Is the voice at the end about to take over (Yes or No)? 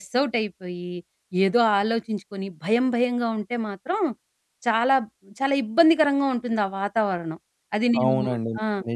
Yes